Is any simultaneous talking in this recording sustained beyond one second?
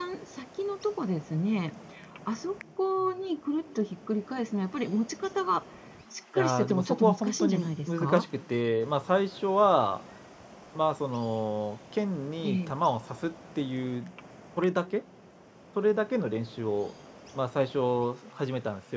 Yes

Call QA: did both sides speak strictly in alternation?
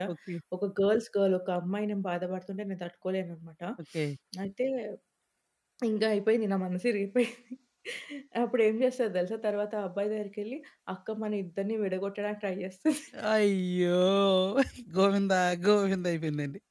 Yes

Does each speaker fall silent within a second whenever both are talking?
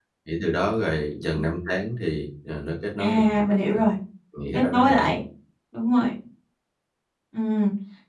Yes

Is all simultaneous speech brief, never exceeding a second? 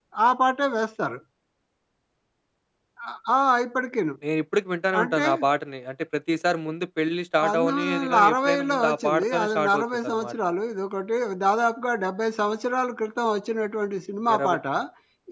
No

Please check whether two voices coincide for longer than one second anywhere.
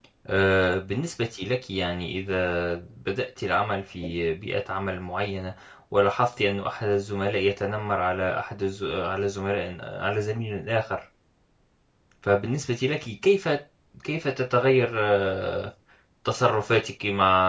No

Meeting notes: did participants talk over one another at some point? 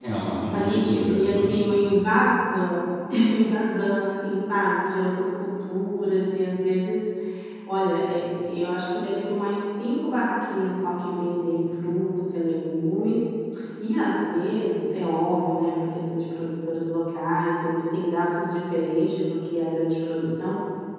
Yes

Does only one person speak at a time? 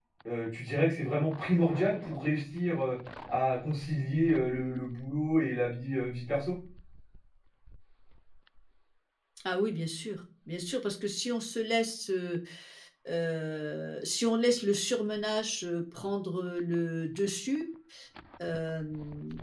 Yes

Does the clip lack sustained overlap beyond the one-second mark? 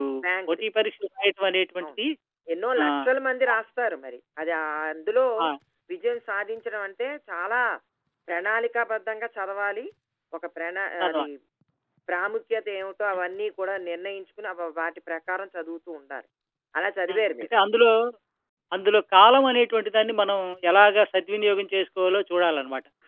Yes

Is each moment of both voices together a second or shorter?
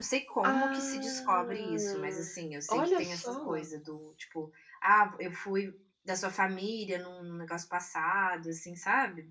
No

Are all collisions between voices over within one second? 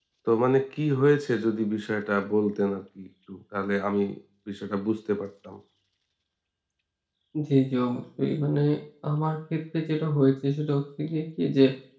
Yes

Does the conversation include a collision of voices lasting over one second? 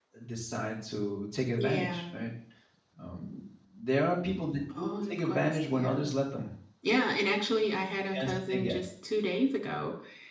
Yes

